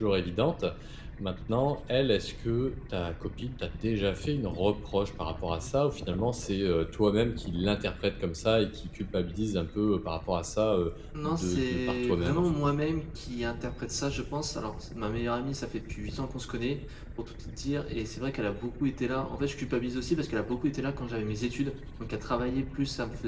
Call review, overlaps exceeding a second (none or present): present